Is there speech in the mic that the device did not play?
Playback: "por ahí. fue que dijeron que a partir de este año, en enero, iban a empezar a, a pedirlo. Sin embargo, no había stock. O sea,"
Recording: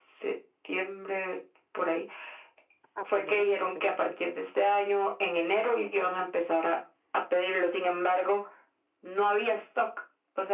Yes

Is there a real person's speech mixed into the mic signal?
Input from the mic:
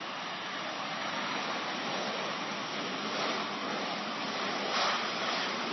No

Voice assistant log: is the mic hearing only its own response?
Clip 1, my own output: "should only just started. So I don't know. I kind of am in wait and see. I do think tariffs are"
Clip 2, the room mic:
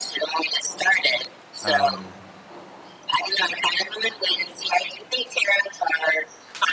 No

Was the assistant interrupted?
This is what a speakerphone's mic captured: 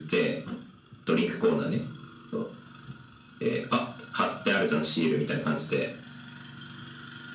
No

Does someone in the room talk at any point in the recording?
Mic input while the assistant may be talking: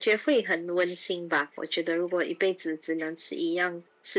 No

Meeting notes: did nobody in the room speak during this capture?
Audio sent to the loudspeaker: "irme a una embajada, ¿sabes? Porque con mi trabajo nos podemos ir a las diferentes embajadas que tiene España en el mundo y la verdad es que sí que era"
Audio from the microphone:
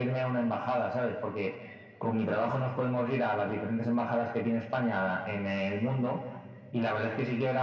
Yes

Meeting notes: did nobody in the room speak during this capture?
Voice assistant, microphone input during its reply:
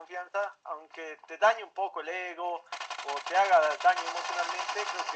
Yes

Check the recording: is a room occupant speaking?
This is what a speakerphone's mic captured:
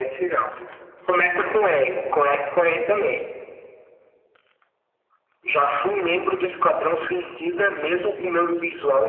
No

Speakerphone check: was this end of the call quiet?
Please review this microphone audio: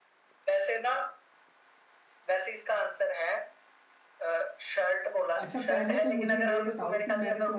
No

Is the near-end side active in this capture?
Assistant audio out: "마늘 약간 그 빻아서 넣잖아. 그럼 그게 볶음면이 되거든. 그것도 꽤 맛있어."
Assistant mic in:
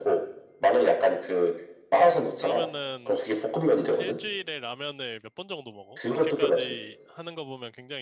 Yes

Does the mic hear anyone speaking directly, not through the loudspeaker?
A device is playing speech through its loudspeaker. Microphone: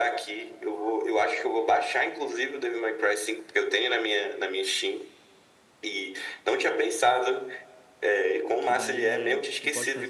Yes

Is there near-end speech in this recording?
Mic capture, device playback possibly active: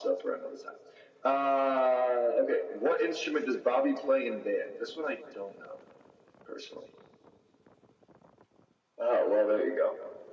No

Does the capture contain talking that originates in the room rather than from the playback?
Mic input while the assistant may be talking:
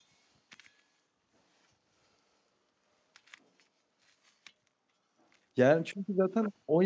Yes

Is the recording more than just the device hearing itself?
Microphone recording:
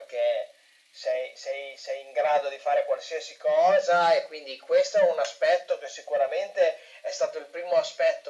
No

